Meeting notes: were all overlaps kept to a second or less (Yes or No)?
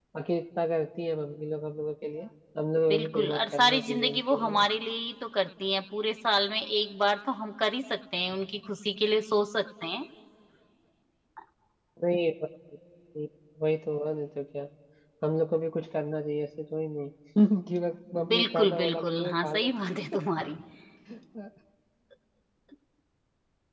No